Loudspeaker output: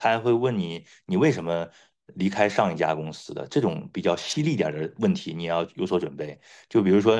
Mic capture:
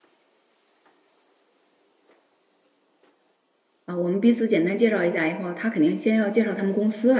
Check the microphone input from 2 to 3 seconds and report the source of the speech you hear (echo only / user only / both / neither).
neither